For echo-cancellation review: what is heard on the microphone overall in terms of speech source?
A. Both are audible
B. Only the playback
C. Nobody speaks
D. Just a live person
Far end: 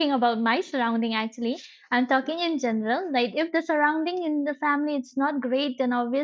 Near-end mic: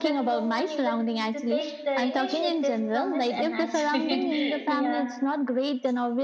A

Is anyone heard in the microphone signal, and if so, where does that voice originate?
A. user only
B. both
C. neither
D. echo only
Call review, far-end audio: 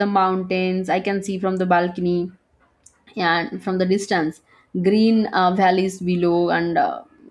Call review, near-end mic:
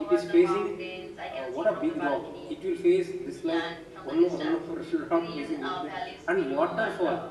B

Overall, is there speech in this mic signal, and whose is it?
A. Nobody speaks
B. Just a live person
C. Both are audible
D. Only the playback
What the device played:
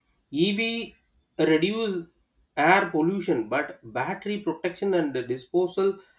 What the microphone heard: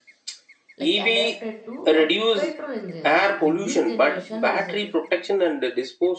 C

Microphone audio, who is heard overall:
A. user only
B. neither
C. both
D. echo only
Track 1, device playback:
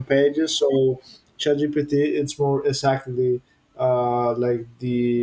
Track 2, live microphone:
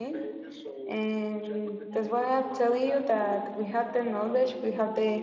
C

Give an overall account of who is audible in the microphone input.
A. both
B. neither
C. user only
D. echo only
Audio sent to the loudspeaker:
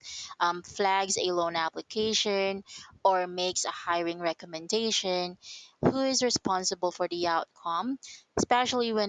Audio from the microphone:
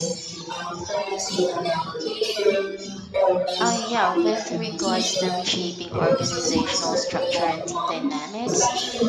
A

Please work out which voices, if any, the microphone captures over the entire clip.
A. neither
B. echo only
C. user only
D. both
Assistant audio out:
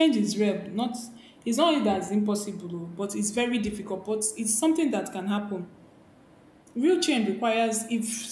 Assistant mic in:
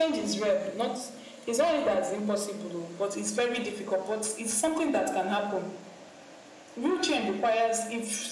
B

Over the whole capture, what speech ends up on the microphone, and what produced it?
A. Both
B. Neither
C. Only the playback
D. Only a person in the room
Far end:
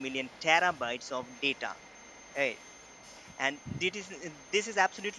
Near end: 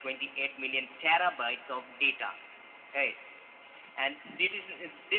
C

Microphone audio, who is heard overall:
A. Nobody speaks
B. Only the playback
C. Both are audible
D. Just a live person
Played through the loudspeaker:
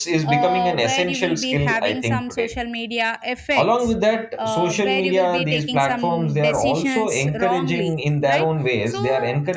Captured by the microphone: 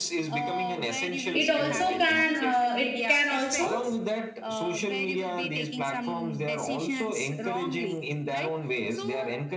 C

